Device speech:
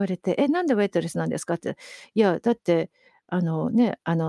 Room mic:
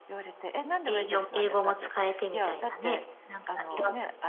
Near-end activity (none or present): present